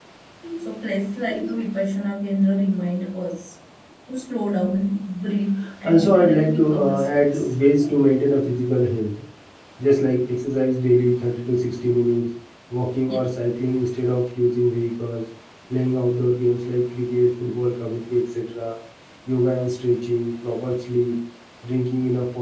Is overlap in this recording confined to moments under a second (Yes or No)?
No